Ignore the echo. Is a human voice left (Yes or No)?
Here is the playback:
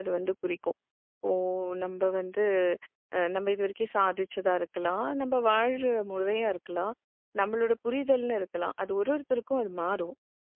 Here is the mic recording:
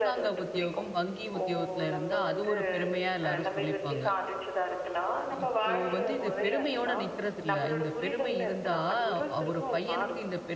Yes